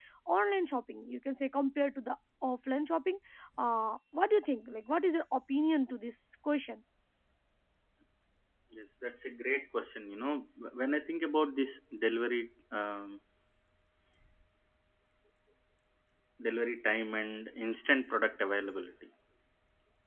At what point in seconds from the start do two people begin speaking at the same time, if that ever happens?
none

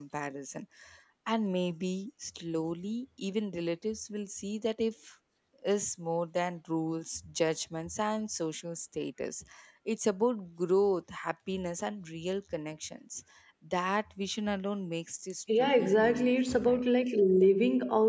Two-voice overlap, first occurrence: 15.5 s

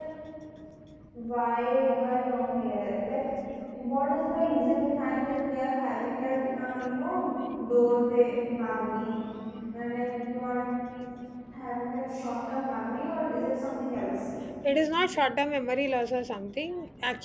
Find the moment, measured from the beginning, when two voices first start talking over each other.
none

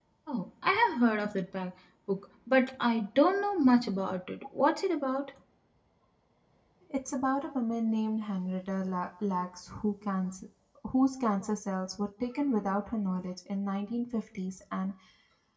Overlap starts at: none

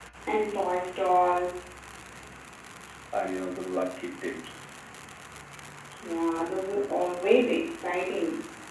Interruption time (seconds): none

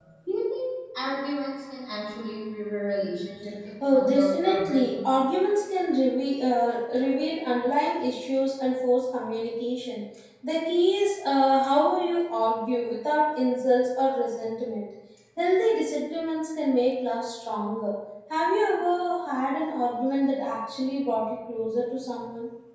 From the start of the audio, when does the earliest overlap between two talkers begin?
3.8 s

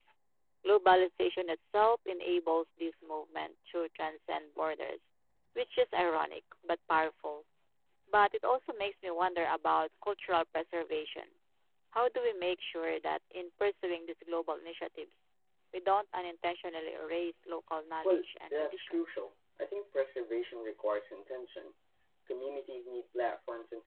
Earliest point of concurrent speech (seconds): 18.0 s

